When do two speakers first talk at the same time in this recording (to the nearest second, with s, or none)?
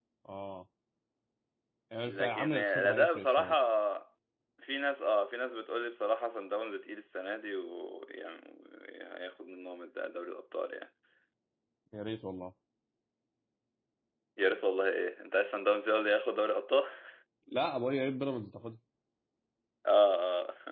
2 s